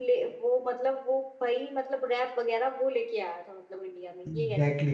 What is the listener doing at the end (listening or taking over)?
taking over